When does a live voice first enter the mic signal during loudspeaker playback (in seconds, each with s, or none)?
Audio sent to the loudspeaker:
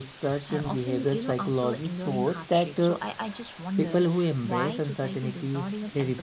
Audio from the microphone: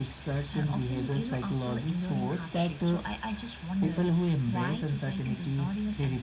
none